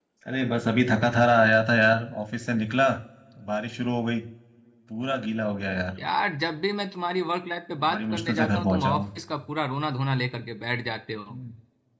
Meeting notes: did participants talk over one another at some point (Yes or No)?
Yes